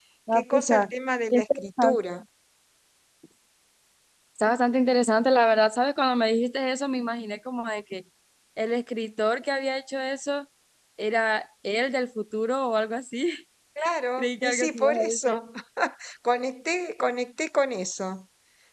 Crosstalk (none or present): present